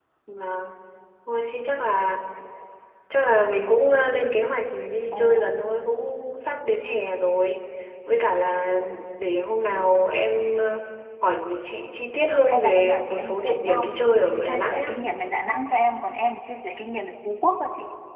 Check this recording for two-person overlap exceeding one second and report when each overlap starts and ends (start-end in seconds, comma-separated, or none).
12.5-14.8